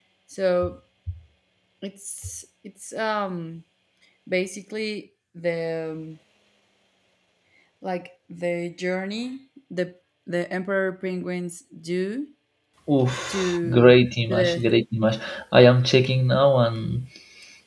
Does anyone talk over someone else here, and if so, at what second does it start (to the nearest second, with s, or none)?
13 s